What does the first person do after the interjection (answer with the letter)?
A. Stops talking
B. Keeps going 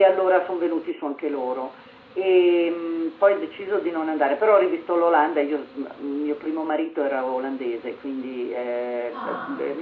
B